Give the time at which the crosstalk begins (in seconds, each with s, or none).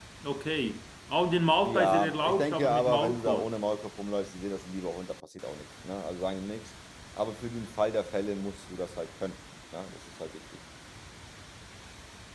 1.6 s